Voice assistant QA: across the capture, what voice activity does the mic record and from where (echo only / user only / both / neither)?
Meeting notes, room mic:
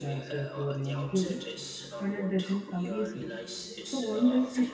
both